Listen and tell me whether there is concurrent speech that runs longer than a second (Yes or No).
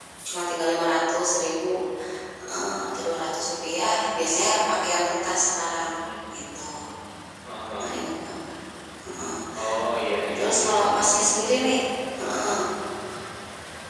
Yes